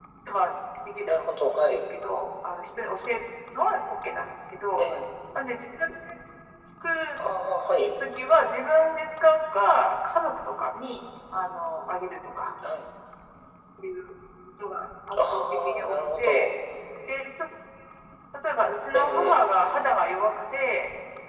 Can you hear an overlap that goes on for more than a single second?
Yes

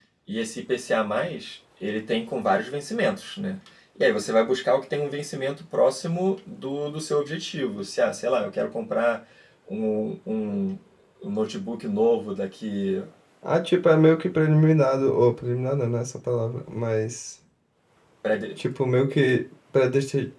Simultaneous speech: No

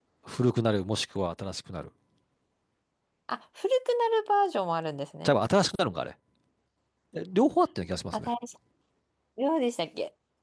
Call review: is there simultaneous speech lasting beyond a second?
No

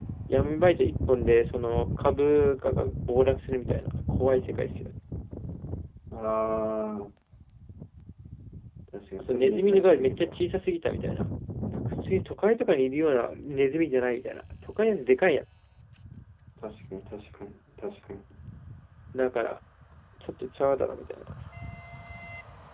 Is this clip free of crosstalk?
No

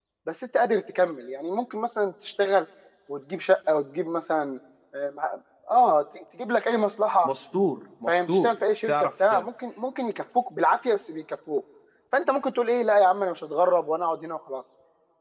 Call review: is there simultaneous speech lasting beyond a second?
No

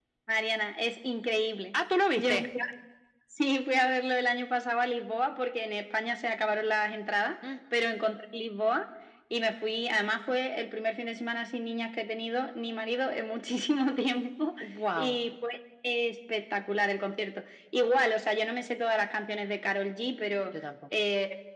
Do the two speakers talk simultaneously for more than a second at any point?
No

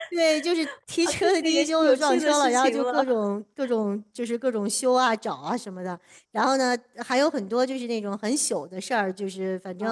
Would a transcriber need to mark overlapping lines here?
Yes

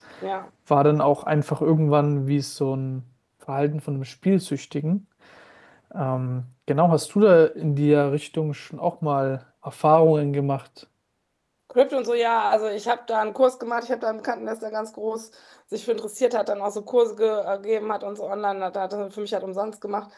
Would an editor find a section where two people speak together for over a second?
No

